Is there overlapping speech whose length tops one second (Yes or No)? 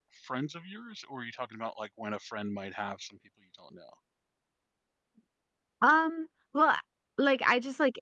No